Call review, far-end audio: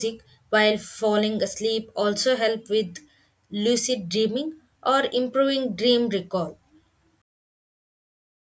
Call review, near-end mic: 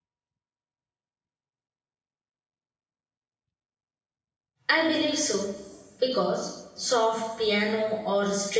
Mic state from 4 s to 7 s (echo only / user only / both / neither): user only